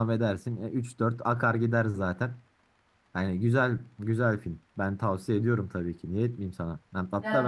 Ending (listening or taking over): listening